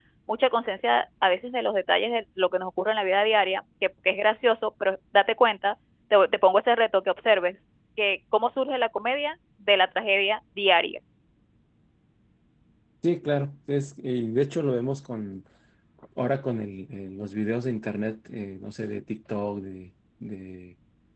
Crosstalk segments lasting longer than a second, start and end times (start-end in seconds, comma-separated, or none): none